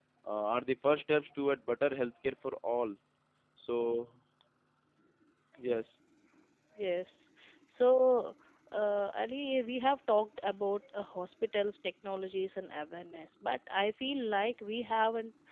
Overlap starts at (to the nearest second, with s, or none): none